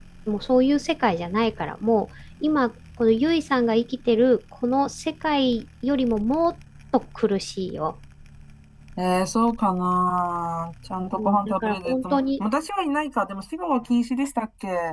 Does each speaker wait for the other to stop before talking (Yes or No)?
No